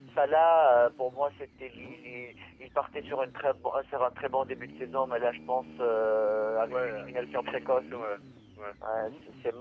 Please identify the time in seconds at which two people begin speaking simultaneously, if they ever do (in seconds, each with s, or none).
6.7 s